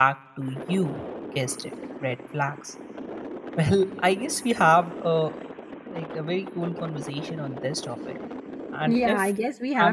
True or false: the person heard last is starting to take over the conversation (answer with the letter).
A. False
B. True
B